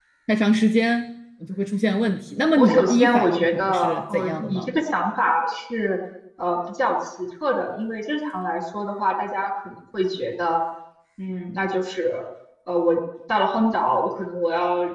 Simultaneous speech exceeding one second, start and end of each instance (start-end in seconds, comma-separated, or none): 2.6-4.7